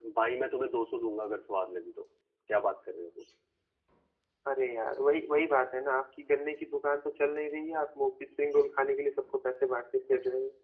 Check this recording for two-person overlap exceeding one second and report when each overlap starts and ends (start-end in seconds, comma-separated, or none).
none